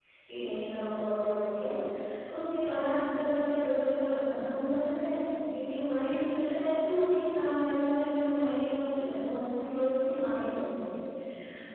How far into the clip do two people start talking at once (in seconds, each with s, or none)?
none